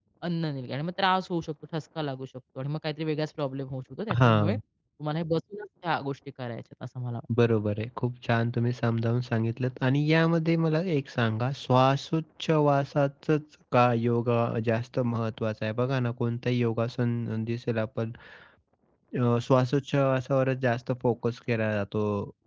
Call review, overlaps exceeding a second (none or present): none